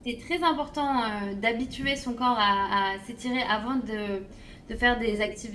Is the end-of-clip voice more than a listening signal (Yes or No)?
No